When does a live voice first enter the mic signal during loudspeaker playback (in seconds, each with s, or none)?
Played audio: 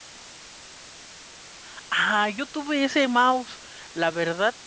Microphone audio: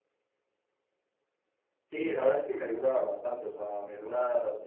1.9 s